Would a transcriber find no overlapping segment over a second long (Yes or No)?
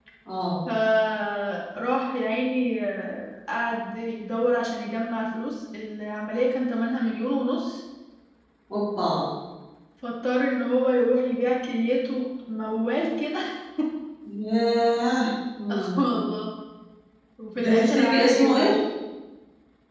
No